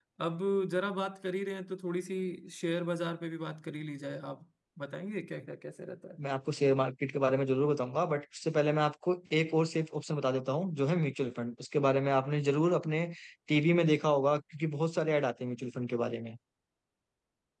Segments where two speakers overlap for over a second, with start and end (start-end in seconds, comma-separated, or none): none